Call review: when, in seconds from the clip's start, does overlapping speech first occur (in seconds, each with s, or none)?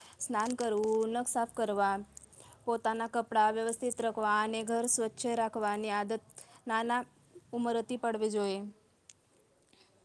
none